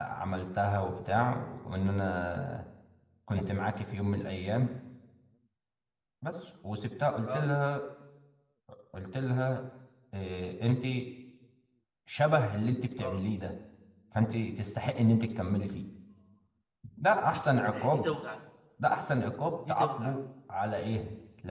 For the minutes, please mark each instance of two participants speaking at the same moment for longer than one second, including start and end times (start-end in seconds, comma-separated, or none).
none